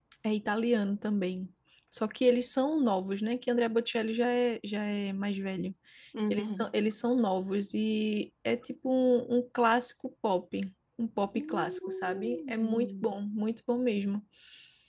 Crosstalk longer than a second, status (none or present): present